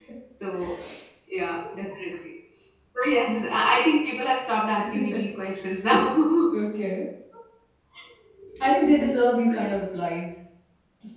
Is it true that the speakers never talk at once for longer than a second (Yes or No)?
Yes